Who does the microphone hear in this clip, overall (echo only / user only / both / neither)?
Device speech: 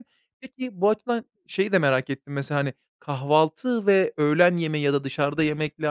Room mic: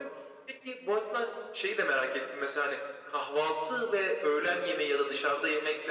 echo only